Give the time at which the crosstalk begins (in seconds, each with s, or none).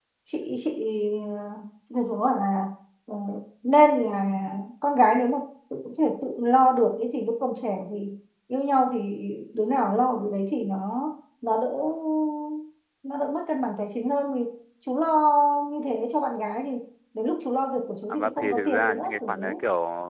18.1 s